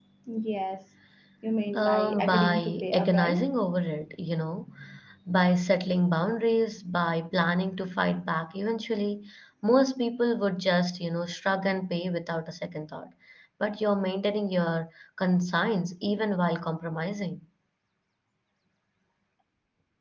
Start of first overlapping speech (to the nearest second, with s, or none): 2 s